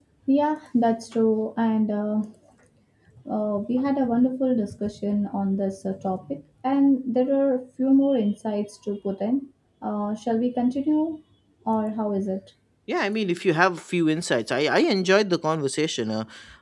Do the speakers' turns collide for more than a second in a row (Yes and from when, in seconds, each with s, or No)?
No